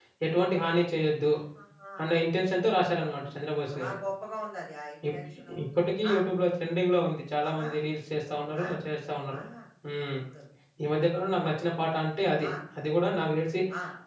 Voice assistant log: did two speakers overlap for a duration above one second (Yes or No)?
No